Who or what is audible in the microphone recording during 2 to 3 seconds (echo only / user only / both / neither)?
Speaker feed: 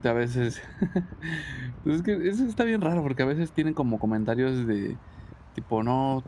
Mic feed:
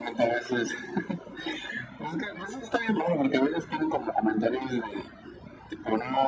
echo only